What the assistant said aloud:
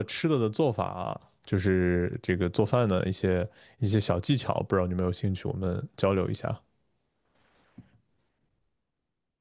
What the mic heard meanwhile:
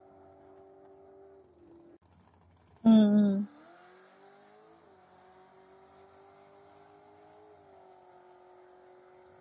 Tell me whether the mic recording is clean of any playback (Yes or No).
Yes